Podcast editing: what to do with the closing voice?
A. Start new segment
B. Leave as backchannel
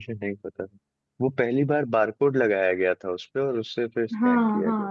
A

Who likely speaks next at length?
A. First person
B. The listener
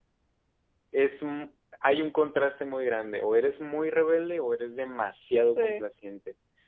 A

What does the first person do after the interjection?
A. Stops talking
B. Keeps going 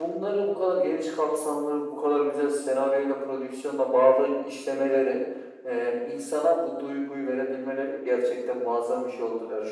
B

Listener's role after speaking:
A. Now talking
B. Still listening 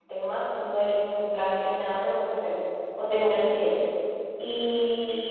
B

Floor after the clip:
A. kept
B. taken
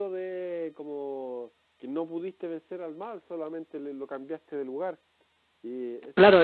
B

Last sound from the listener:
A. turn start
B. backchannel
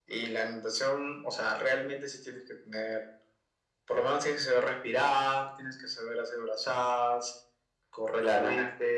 A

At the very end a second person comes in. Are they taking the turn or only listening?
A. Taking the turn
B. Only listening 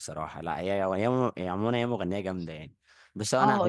A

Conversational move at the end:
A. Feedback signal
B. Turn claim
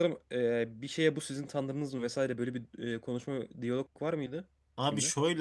B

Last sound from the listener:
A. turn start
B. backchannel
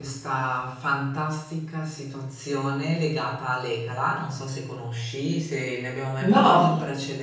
B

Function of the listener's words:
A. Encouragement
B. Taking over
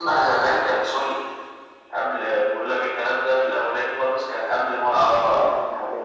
B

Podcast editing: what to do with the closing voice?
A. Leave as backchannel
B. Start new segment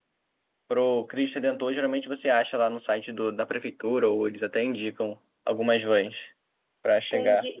B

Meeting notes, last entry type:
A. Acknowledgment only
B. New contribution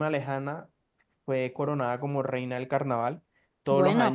A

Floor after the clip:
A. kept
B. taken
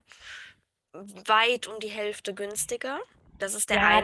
B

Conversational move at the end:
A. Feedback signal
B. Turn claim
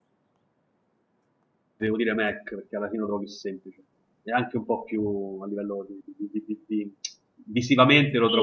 B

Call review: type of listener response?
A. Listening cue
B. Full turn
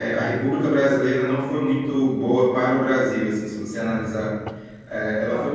A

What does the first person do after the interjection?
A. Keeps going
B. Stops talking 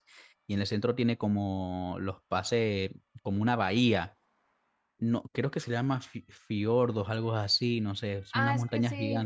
B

